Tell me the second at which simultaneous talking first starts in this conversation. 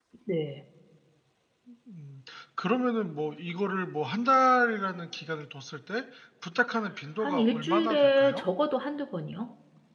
7.2 s

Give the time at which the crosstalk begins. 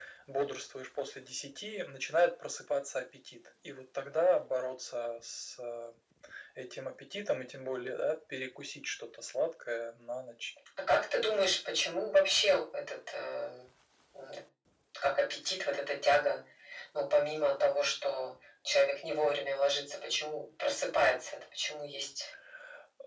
none

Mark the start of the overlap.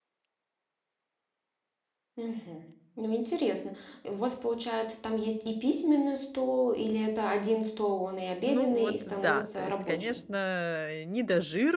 8.5 s

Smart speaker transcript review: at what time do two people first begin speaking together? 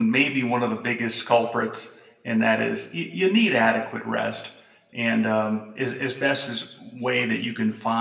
none

